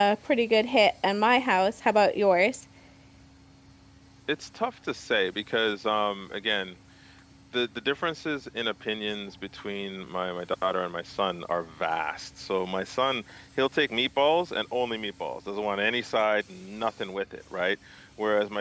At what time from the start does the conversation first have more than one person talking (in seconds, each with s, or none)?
none